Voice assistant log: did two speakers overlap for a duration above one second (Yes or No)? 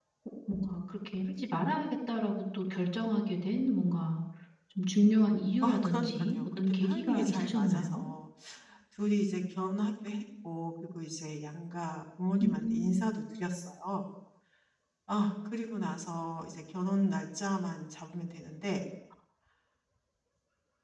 Yes